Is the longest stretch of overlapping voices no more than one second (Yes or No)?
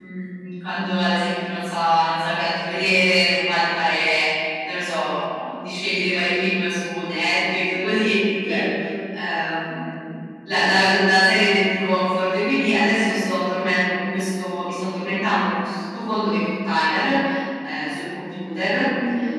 Yes